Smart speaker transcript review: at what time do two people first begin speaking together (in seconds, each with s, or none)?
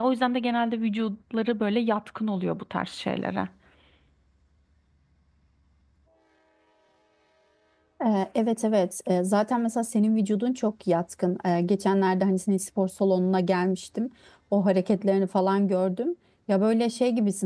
none